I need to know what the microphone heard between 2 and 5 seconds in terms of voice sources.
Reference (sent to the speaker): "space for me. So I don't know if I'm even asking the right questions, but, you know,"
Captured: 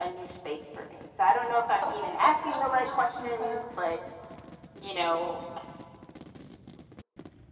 both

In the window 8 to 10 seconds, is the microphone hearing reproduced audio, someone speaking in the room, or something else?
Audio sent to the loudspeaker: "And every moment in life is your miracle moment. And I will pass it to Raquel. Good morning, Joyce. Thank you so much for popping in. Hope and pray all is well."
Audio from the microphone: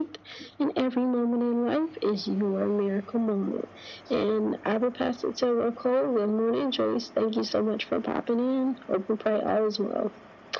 echo only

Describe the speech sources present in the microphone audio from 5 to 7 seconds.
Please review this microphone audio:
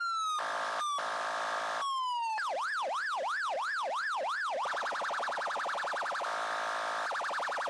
neither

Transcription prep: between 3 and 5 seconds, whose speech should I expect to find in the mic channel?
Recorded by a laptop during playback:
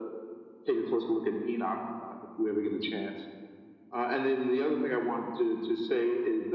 echo only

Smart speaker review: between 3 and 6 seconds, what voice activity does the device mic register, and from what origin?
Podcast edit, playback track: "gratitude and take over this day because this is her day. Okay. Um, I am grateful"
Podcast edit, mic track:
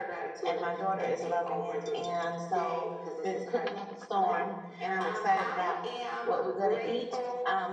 both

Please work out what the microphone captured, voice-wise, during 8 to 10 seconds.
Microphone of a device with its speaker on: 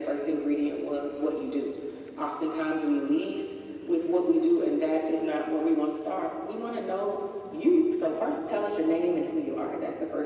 echo only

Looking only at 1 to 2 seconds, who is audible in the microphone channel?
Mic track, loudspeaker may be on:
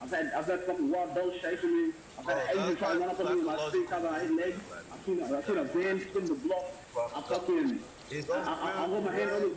echo only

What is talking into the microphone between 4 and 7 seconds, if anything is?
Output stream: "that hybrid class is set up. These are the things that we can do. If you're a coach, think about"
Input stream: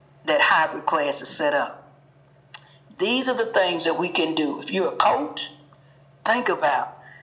echo only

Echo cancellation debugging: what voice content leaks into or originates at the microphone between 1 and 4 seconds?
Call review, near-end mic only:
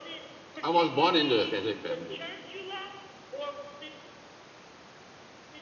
both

